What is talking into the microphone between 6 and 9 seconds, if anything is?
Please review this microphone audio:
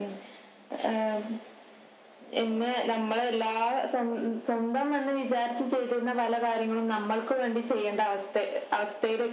echo only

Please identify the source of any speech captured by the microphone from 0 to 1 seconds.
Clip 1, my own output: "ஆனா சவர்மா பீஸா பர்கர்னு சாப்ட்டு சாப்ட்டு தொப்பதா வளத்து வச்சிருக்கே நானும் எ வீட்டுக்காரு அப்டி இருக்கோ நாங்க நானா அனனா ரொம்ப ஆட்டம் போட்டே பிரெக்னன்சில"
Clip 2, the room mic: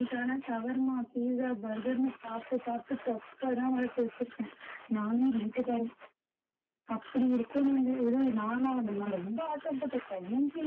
echo only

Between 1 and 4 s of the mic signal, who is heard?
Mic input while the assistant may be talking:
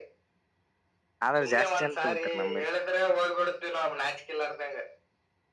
both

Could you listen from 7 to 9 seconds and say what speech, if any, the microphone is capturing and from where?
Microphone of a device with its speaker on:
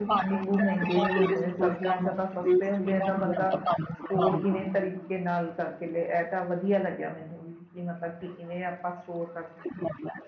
user only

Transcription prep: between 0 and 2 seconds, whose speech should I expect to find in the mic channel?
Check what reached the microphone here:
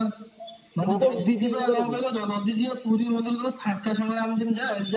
both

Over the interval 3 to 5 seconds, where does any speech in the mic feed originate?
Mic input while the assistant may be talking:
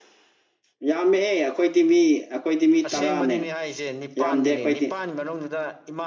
both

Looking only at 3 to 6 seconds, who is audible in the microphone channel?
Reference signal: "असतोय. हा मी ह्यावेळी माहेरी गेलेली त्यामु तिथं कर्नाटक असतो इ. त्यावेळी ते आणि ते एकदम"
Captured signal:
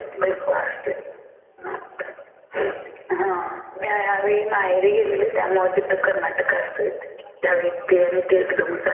echo only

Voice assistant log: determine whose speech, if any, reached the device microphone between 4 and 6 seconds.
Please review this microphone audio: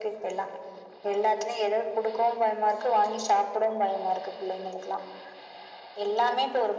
echo only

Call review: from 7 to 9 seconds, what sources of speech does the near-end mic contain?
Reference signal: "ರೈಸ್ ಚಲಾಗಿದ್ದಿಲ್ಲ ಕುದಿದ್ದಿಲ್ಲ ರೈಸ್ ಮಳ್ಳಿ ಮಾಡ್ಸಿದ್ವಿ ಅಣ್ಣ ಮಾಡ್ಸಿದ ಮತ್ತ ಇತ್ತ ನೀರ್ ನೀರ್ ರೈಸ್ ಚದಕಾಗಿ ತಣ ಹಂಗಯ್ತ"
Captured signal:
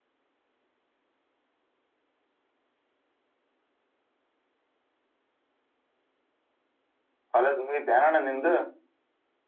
user only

